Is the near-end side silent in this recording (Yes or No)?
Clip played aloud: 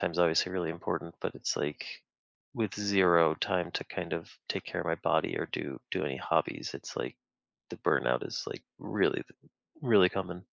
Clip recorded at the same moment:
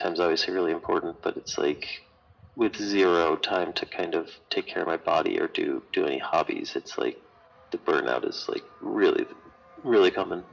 Yes